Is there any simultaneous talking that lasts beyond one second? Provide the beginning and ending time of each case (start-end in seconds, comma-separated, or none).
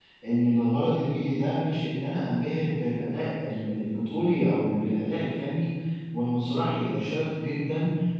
none